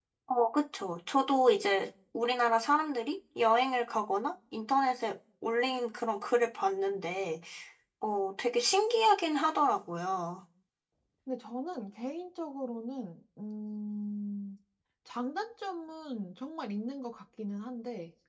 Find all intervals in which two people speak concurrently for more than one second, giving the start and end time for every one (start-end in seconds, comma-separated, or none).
none